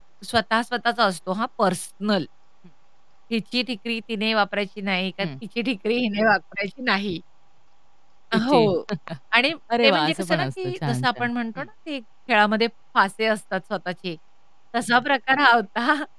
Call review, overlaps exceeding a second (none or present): present